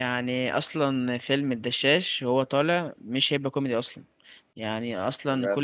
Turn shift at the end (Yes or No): No